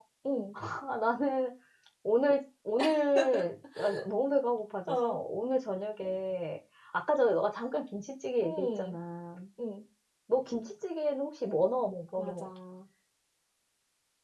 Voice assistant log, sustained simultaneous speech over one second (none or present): none